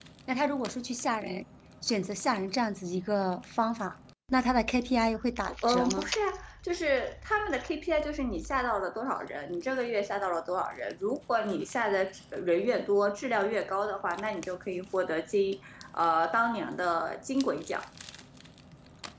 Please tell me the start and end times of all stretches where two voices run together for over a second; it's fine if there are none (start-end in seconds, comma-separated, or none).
none